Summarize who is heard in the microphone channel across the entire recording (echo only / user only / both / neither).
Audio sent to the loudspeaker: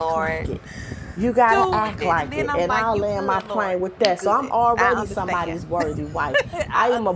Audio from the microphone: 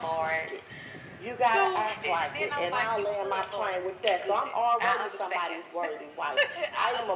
echo only